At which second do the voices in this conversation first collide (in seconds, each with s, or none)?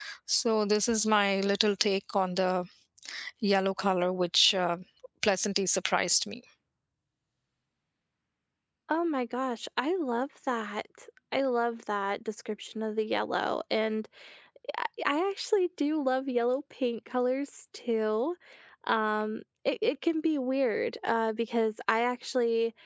none